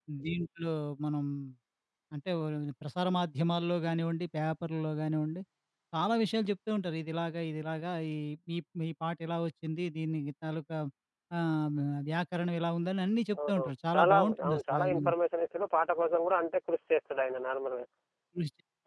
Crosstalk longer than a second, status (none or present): present